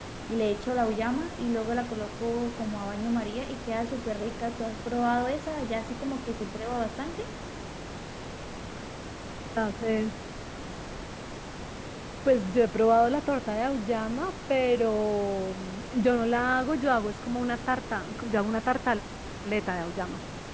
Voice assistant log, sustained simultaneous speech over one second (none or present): none